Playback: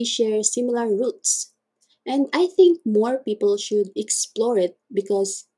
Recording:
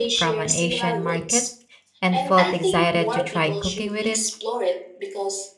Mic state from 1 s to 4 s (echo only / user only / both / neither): both